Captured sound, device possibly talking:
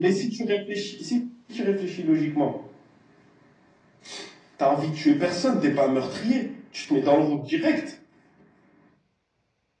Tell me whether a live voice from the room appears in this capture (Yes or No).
No